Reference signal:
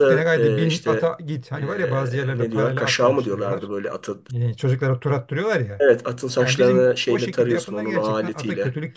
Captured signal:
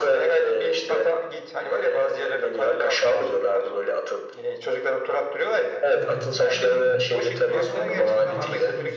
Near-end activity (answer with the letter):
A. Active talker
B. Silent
A